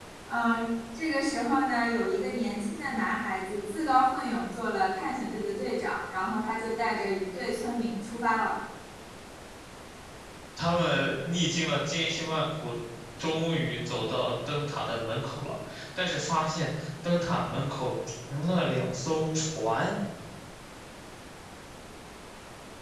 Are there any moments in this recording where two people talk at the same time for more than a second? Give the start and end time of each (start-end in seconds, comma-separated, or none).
none